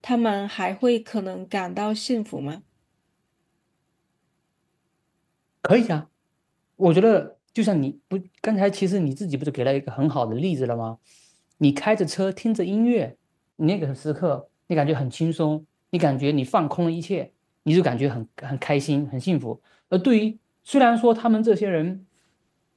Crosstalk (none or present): none